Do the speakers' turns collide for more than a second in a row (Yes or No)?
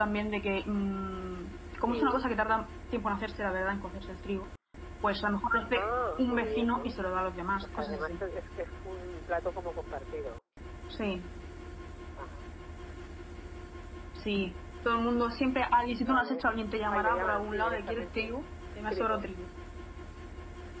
Yes